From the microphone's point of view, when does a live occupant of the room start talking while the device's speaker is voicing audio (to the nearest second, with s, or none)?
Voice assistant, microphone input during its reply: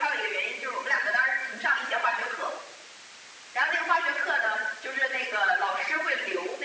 none